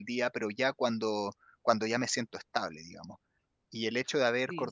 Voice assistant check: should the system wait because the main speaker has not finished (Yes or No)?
Yes